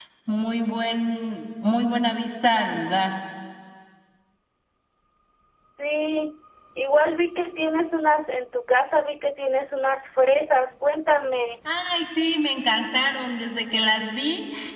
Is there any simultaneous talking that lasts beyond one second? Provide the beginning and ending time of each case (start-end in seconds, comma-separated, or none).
none